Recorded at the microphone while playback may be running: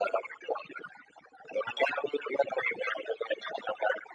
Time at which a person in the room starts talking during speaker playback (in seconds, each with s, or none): none